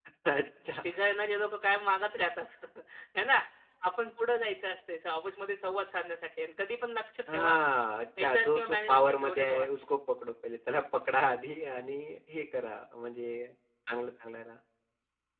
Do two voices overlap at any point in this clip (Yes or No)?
Yes